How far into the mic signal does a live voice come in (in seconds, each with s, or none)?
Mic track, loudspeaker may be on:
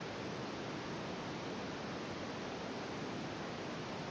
none